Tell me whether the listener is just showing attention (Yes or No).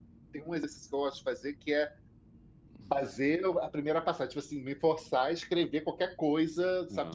Yes